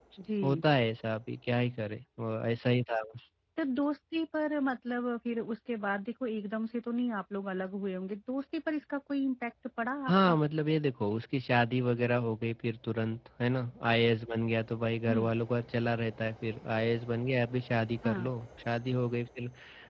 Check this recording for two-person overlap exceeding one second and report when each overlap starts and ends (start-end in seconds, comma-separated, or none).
none